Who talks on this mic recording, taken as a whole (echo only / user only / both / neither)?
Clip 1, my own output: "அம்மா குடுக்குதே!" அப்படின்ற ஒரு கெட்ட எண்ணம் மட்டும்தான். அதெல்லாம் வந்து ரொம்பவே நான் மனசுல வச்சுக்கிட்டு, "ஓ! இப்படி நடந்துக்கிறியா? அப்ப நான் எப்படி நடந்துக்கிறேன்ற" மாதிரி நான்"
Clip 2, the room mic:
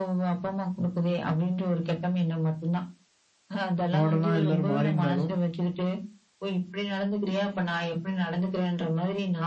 both